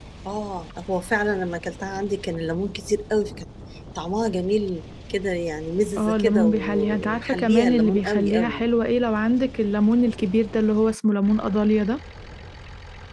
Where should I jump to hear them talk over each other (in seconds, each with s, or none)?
6.0 s